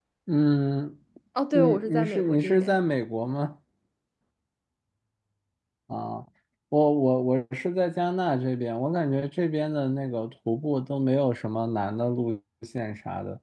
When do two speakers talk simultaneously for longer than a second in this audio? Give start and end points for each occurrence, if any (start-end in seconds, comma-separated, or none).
1.5-2.8